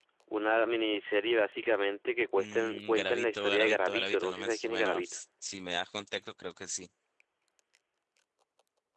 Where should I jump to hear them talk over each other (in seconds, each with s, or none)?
2.4 s